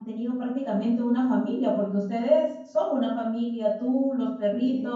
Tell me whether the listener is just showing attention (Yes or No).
Yes